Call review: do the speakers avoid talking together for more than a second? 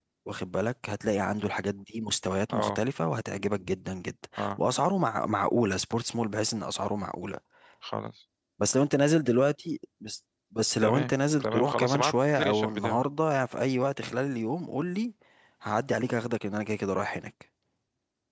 No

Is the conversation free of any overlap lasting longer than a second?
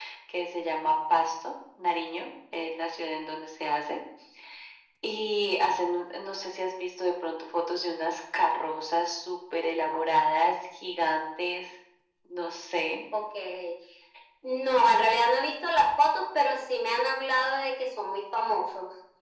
Yes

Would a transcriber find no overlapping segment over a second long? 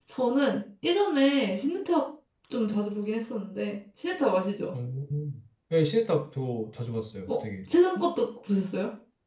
Yes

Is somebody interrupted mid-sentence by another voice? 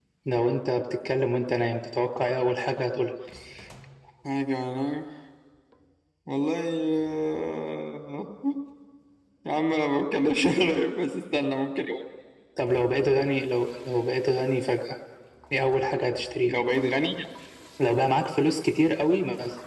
No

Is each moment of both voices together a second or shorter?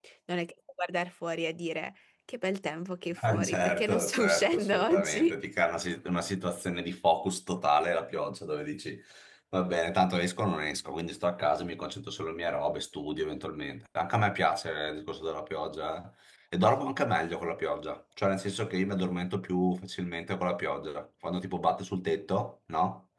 No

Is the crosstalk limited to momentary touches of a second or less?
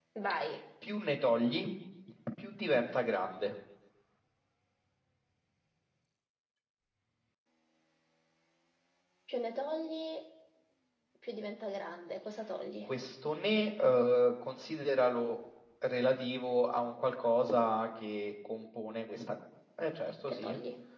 Yes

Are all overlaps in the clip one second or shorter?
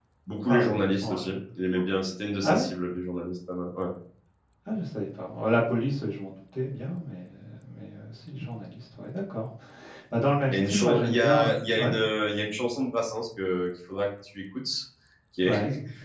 No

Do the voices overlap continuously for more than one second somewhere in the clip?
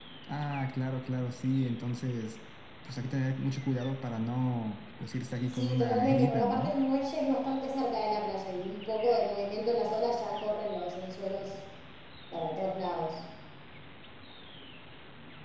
Yes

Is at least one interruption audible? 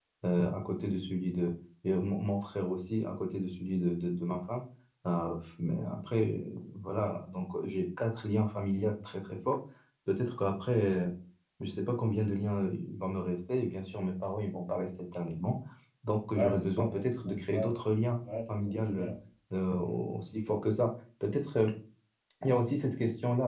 Yes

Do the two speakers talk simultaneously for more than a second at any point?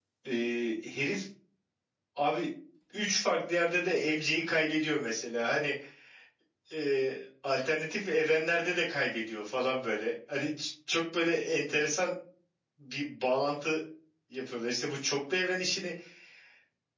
No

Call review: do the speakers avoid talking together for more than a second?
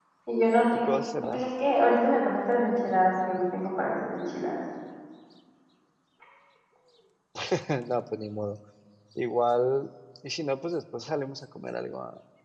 Yes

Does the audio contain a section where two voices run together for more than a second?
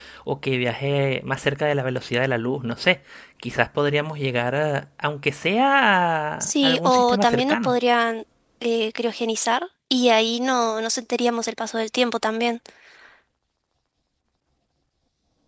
Yes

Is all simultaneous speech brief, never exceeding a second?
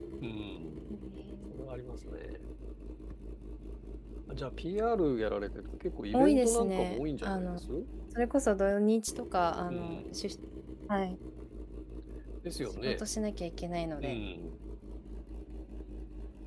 No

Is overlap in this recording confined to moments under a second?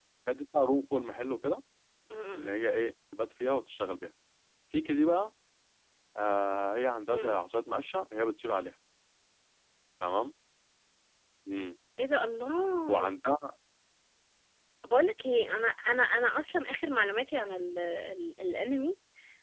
Yes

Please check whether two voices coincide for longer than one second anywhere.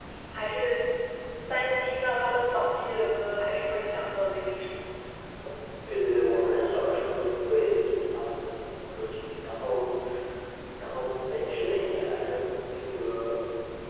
No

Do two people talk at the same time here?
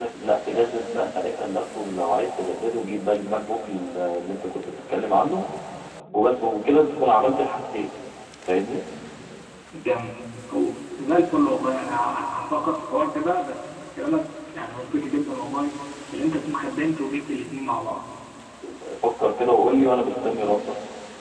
No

